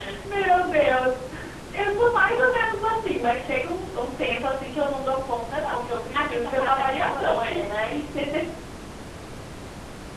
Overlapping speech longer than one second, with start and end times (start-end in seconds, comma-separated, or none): 6.1-7.6